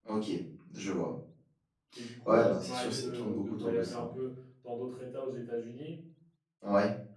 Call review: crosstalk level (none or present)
present